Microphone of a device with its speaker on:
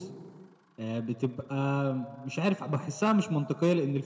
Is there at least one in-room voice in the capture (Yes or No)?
No